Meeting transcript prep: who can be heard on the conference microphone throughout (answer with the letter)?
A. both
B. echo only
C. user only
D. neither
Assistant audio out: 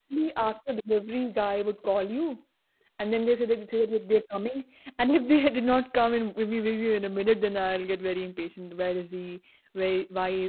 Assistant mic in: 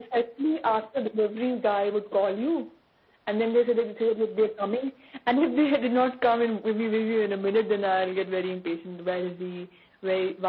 B